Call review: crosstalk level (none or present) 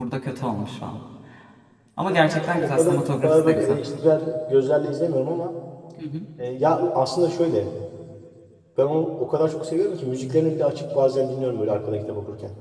present